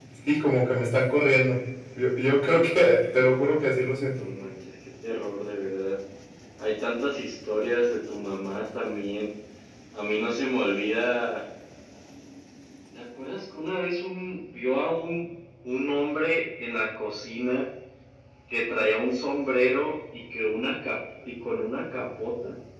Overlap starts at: none

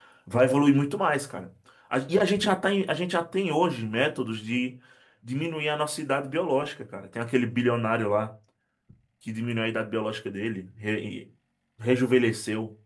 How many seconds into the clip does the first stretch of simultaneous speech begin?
none

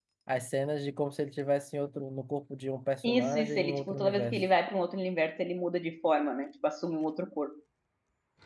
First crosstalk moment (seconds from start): 3.0 s

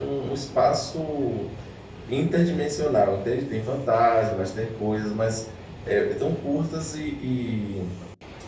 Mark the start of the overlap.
none

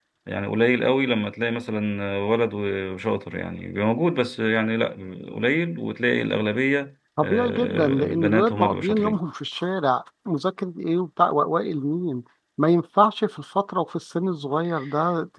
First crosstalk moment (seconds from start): 7.2 s

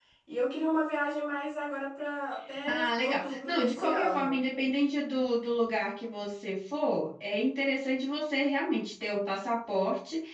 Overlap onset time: 2.7 s

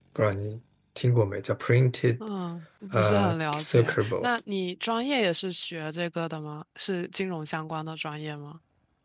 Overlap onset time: 2.9 s

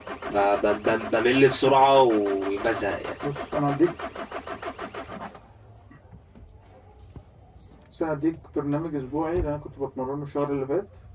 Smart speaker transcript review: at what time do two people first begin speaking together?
none

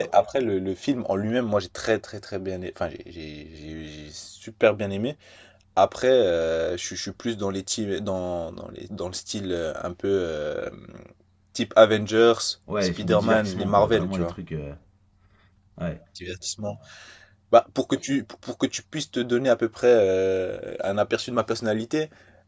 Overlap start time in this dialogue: 12.8 s

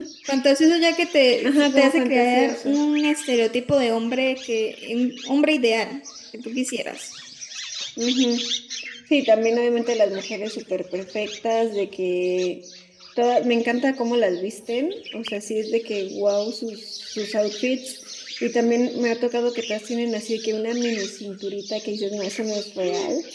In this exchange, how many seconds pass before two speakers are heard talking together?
1.4 s

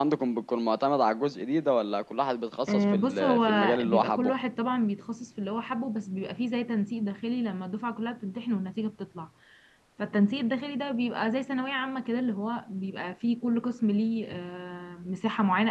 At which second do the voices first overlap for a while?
2.7 s

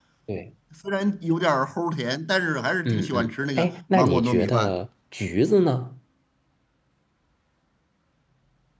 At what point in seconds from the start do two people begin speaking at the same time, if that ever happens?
2.9 s

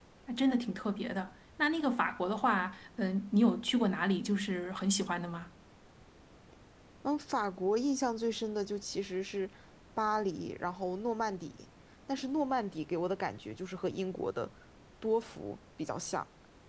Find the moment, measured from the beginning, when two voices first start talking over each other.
none

